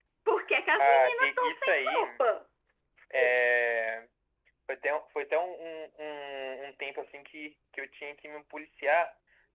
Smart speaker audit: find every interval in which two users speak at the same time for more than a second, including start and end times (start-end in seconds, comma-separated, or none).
0.8-2.0